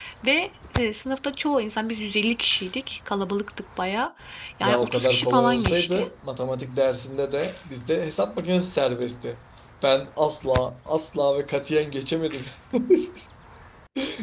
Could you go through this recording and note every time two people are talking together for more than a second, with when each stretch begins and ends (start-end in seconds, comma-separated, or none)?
4.6-6.1